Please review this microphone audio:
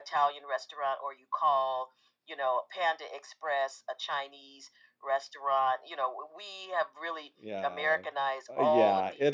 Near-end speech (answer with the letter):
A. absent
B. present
B